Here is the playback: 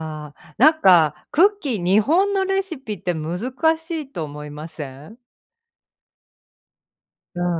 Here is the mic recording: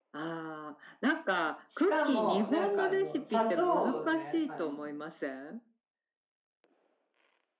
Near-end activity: present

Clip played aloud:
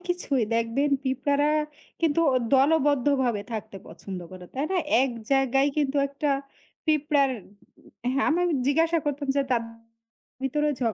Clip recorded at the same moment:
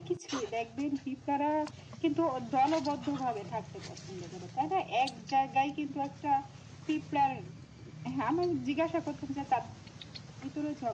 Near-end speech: none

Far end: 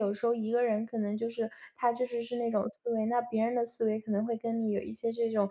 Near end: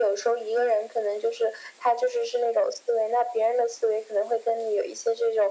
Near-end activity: none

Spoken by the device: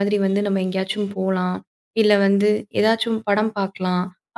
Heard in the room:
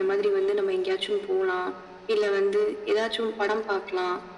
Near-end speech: none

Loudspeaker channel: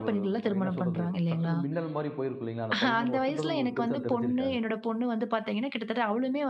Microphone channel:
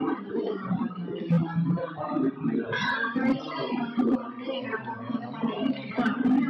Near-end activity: present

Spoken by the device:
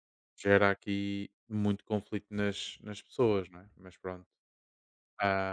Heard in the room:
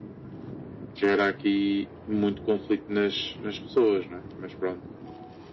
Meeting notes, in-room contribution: none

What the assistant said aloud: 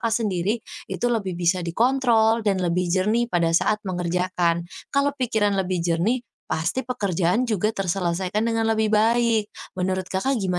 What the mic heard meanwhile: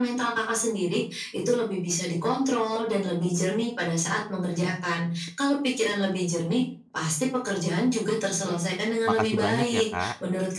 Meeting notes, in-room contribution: present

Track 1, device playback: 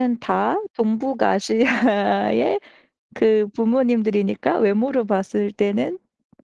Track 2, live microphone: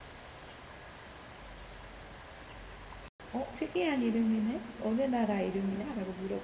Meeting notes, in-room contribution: present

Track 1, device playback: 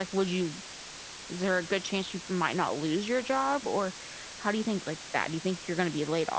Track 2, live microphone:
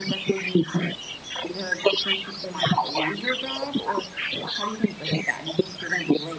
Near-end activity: none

